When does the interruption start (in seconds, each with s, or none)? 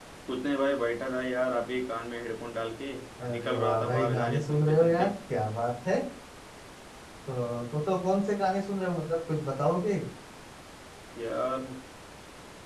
3.3 s